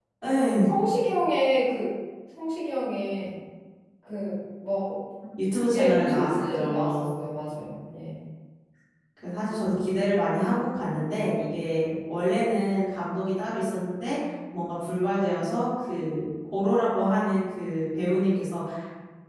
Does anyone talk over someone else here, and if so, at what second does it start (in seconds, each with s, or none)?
5.7 s